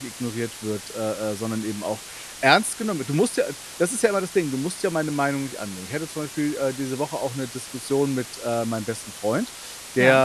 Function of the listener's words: listening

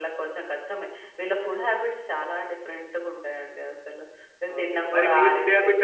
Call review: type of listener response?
taking over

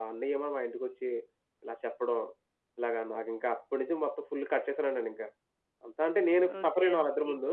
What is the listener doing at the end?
taking over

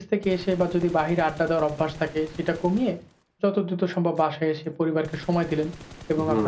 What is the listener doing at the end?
listening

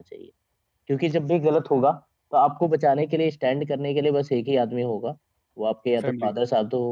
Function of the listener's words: listening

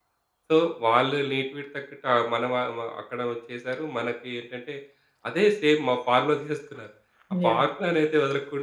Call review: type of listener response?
listening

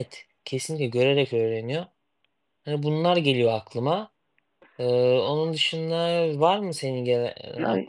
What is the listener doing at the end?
taking over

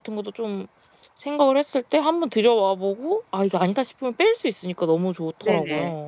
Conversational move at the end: taking over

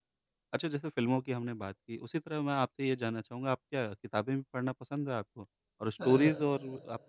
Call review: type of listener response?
listening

